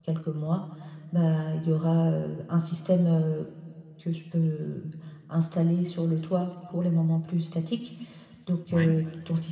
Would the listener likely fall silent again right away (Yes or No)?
Yes